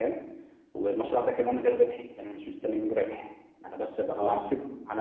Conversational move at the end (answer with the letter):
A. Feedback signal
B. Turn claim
A